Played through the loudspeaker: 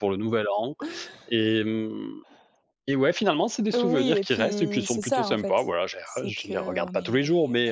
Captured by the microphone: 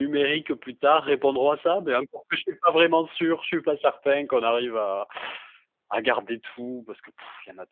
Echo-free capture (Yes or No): Yes